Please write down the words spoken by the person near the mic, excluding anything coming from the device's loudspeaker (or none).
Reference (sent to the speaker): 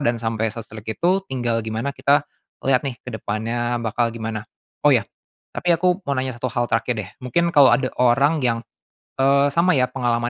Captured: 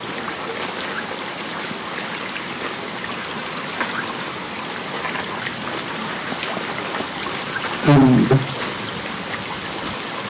Mhm.